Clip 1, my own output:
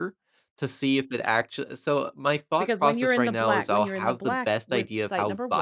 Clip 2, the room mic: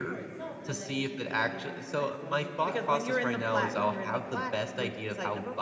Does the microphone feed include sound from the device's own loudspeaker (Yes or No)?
Yes